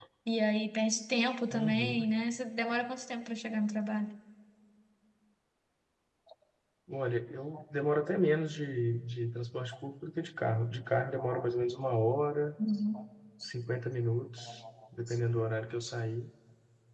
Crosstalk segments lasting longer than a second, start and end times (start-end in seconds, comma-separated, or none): none